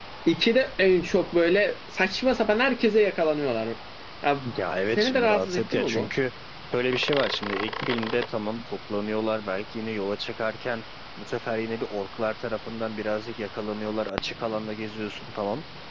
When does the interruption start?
4.9 s

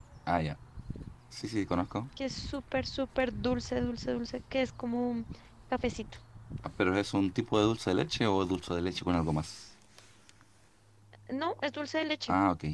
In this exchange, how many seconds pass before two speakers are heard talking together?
none

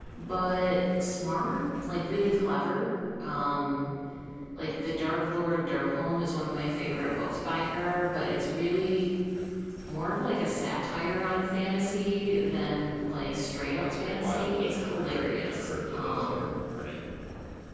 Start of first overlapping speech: 13.7 s

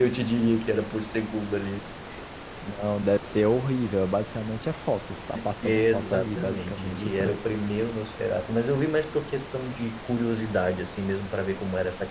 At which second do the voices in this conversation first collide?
5.6 s

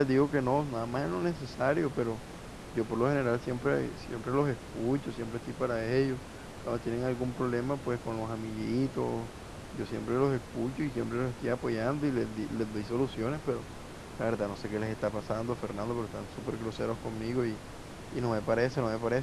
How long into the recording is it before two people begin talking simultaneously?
none

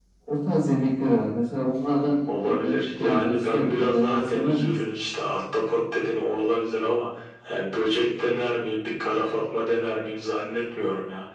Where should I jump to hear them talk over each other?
2.3 s

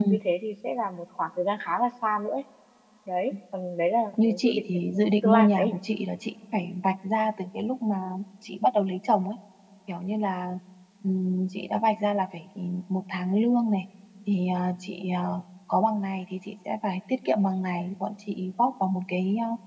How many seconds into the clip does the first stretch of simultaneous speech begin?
4.2 s

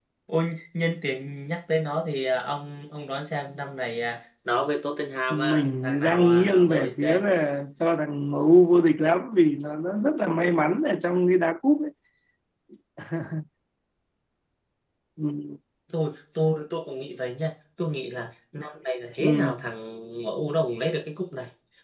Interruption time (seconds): 5.3 s

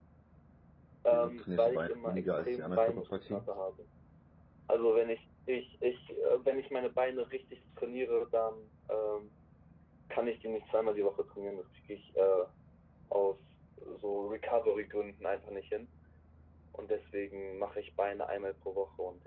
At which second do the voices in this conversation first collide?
1.1 s

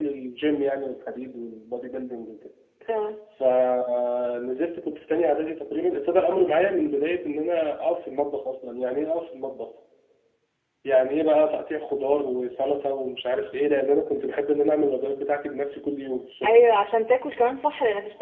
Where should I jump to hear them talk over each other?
none

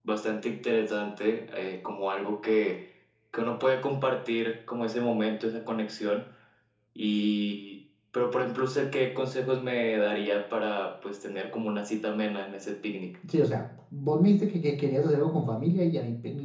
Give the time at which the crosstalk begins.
none

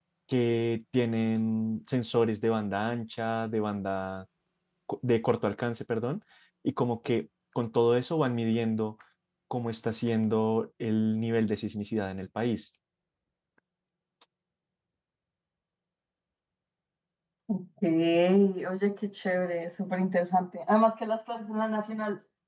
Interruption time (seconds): none

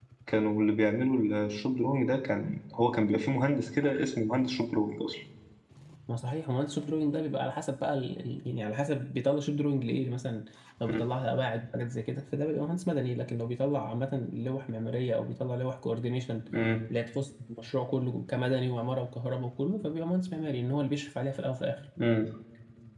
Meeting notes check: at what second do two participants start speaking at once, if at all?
none

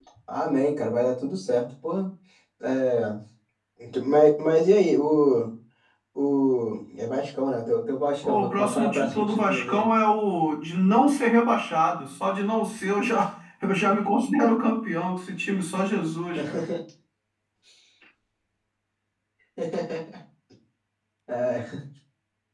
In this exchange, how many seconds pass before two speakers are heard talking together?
8.2 s

